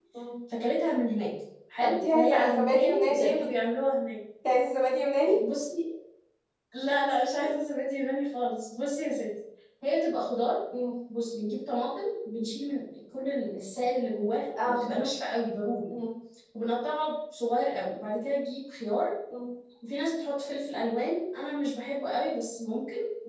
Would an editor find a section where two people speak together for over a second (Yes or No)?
Yes